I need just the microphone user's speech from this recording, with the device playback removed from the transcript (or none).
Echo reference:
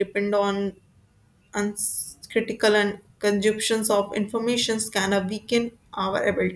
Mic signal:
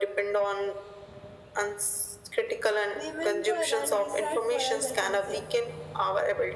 remember, and decide for us, I can say